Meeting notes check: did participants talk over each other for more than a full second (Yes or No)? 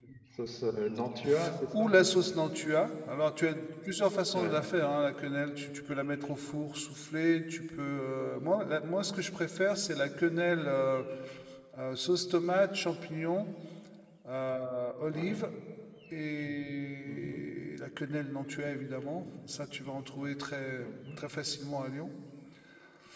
No